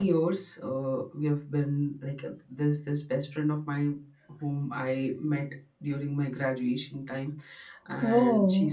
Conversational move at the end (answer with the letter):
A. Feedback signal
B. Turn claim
A